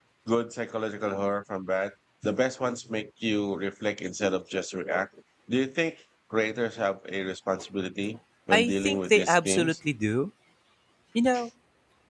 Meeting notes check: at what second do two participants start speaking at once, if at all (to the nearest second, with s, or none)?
9 s